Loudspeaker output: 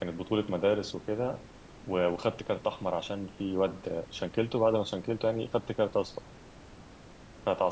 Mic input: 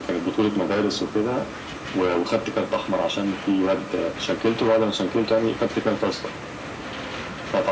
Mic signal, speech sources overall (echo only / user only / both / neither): echo only